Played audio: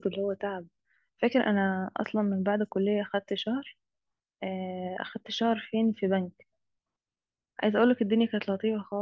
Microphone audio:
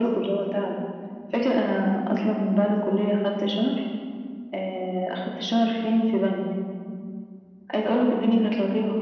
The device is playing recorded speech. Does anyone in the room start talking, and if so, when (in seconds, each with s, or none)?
none